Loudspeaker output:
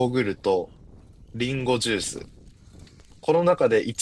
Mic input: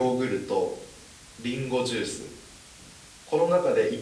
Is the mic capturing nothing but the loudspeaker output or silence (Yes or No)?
Yes